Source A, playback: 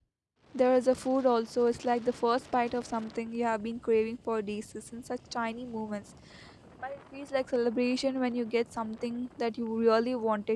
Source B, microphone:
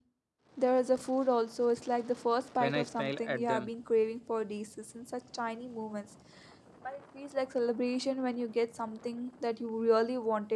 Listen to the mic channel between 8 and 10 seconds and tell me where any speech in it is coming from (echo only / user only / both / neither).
echo only